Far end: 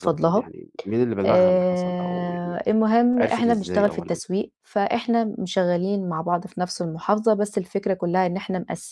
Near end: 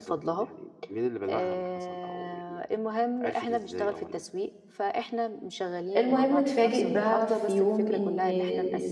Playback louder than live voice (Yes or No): No